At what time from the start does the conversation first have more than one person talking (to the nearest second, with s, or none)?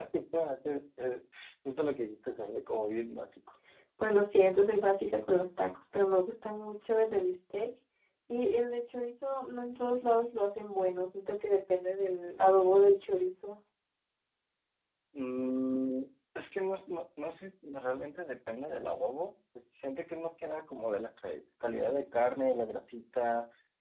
none